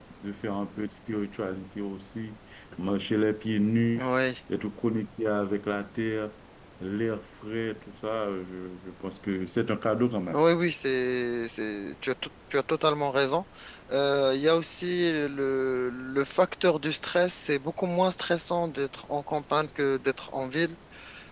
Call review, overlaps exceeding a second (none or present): none